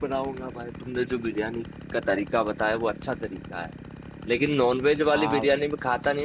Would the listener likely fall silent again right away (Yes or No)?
Yes